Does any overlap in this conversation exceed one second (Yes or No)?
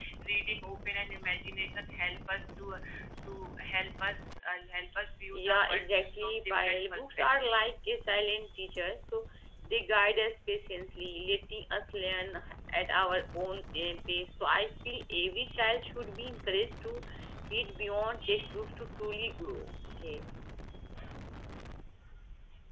Yes